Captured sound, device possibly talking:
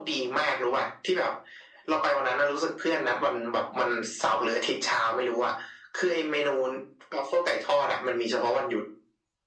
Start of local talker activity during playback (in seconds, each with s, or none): none